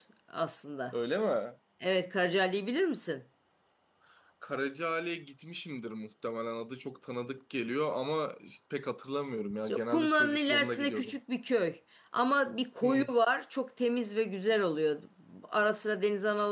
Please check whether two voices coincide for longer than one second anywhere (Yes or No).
Yes